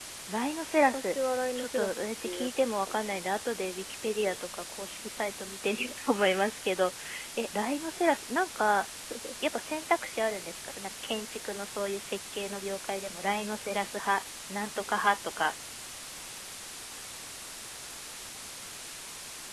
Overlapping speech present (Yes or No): Yes